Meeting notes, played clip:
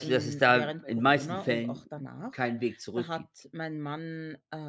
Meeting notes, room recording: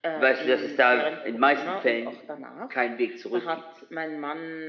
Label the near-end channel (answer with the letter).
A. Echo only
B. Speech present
A